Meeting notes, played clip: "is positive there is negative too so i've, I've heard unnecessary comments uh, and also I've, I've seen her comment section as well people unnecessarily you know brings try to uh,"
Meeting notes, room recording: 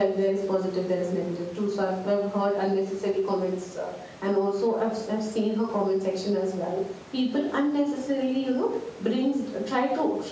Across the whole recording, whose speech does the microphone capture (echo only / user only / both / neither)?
echo only